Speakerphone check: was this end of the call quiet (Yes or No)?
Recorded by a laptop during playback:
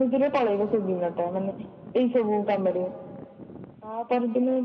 Yes